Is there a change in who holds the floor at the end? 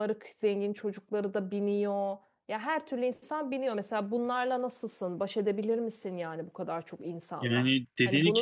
Yes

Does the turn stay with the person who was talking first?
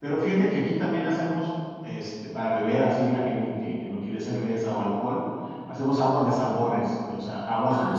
No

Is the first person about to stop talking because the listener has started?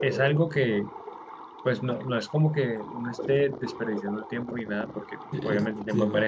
No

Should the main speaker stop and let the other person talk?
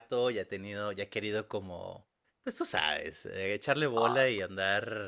No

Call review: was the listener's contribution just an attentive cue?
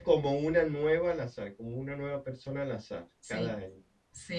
No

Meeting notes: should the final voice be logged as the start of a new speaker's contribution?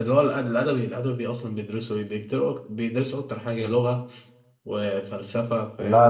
Yes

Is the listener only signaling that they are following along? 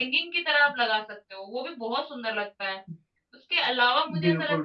Yes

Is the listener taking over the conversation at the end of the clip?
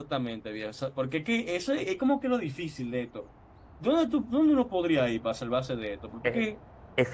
Yes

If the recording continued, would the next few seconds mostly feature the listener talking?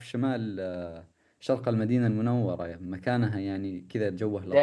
Yes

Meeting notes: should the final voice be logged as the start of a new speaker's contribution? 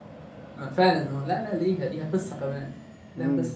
Yes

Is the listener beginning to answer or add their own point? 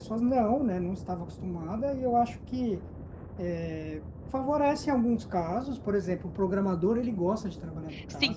Yes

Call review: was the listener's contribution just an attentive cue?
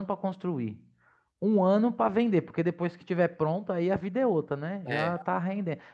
Yes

